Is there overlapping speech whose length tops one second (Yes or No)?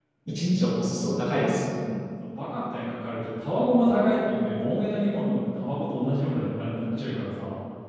No